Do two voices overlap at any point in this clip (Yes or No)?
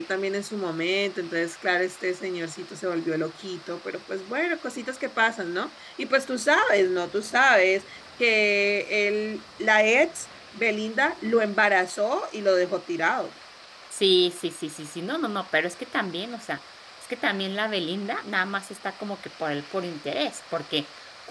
No